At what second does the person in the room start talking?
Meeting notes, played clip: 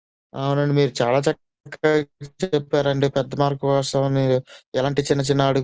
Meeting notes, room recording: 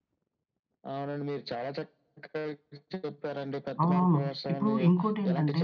3.8 s

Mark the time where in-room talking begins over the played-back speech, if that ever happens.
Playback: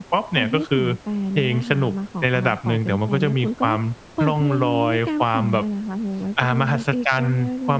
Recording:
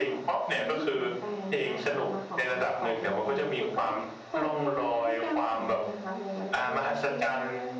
none

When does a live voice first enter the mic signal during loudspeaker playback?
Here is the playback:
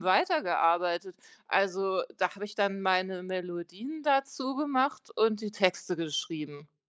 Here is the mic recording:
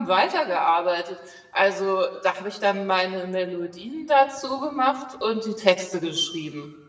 none

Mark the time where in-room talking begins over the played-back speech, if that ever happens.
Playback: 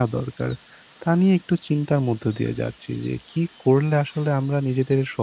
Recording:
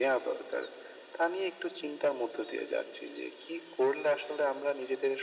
none

